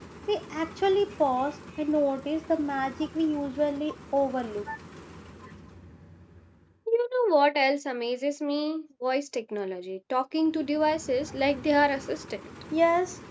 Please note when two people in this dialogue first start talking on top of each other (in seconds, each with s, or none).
none